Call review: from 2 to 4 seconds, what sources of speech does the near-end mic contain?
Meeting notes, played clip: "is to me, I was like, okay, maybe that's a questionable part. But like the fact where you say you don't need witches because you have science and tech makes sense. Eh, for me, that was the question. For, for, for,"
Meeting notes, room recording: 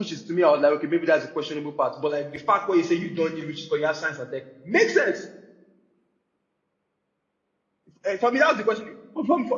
echo only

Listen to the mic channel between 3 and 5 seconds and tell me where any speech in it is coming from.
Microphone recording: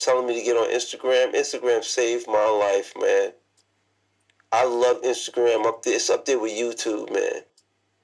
echo only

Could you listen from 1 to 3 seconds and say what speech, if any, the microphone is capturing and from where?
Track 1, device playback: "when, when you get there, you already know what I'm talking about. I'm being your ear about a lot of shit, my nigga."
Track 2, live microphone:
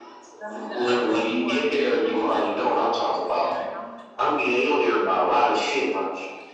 both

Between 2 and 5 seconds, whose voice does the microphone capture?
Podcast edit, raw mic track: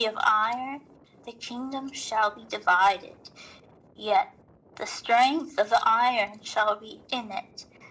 echo only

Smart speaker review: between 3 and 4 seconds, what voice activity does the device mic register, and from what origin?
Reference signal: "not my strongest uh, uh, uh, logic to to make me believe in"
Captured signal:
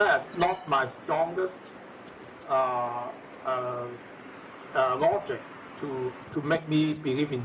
echo only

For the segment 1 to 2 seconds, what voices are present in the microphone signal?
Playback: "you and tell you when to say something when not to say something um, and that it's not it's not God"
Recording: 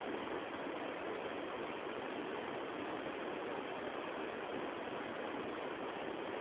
neither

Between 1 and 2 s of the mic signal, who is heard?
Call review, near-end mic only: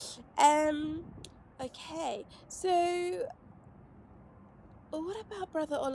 user only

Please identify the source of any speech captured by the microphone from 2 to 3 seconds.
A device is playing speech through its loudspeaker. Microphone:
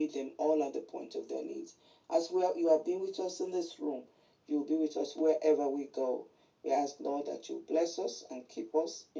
echo only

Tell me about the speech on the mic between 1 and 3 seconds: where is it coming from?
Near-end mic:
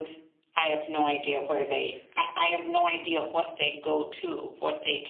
echo only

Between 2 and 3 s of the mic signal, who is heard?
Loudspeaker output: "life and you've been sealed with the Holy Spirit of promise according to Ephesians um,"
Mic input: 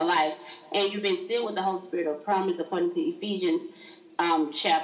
echo only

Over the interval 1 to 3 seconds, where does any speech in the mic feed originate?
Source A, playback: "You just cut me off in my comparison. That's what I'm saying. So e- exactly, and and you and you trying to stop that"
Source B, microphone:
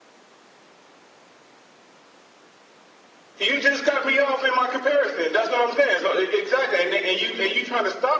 neither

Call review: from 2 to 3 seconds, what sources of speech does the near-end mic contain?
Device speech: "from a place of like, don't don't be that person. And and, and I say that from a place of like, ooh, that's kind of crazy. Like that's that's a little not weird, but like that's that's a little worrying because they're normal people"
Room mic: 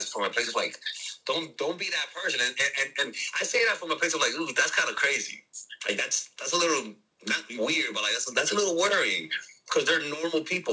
echo only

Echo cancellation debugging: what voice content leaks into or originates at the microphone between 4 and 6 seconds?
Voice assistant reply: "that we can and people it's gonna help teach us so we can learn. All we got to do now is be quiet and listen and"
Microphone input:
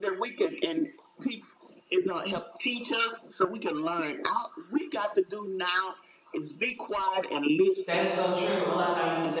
echo only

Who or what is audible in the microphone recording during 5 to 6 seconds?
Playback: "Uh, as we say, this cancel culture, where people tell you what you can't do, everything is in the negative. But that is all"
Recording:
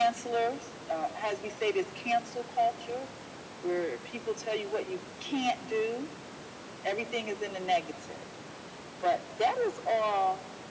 echo only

